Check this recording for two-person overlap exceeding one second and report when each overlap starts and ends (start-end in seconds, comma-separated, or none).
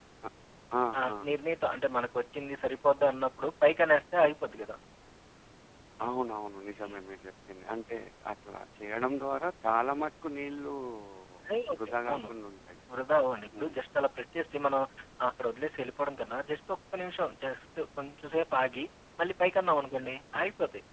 none